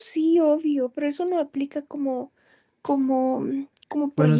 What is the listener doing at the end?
taking over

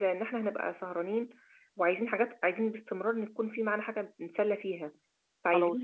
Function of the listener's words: listening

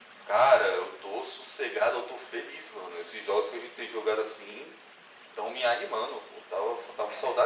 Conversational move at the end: listening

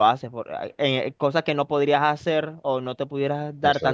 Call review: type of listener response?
listening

